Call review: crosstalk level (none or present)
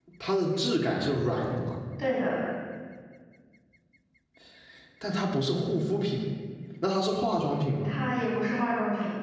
none